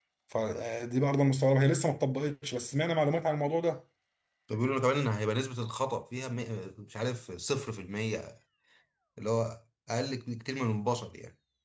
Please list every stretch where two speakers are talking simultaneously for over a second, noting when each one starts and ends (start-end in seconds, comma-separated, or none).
none